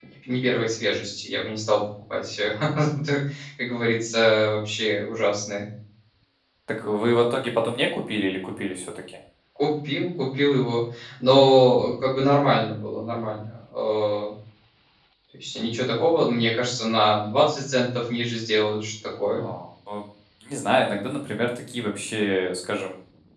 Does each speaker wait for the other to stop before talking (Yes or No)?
Yes